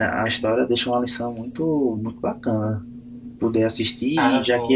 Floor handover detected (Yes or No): No